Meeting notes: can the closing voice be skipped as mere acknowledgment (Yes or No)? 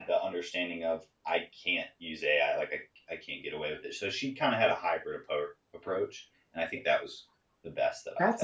No